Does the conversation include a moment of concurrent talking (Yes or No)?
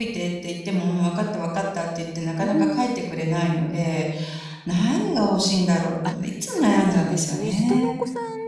Yes